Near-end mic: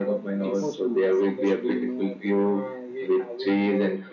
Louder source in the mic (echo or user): echo